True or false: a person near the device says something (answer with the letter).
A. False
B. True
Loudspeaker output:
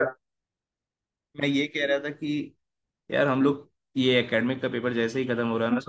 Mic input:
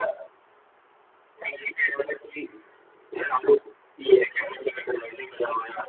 A